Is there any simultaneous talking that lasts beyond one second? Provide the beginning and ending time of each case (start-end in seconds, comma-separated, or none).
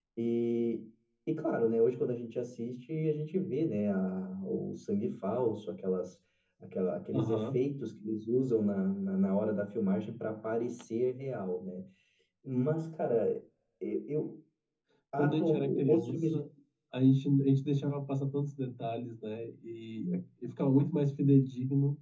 15.2-16.4